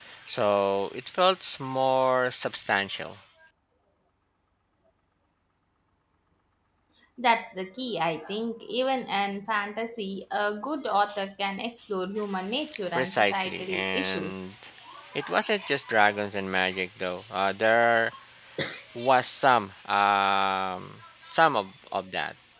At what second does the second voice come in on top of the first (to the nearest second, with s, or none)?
13 s